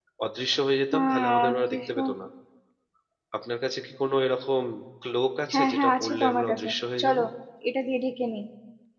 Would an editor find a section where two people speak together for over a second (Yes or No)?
Yes